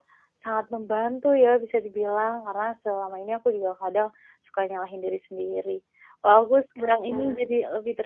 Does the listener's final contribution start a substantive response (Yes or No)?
No